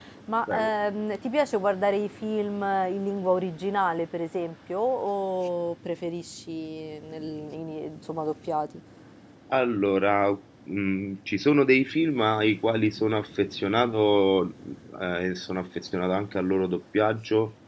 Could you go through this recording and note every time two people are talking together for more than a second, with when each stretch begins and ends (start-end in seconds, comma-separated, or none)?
none